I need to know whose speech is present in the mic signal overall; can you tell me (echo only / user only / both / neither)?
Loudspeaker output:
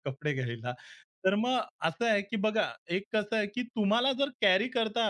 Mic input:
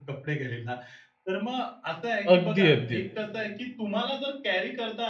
both